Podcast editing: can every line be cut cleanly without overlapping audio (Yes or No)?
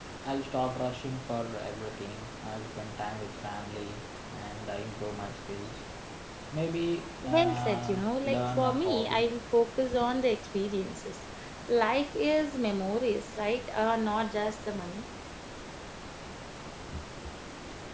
No